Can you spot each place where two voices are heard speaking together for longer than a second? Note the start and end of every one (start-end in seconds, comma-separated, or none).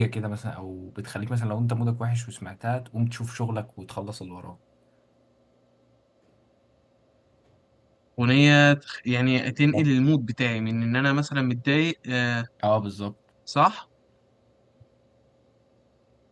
none